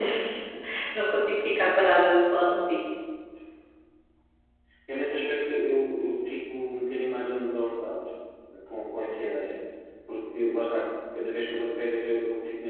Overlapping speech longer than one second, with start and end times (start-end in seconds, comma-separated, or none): none